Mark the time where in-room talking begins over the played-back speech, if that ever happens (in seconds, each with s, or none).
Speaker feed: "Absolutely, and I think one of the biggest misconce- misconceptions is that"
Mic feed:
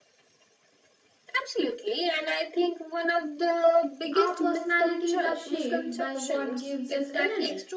4.1 s